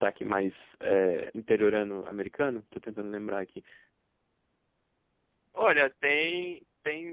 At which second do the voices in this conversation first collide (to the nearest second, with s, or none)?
none